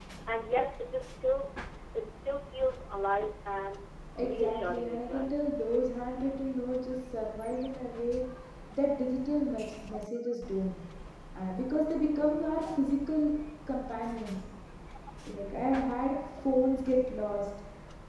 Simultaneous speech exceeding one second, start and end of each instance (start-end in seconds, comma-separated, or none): 4.2-5.4